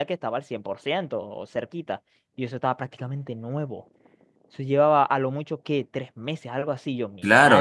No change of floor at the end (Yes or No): No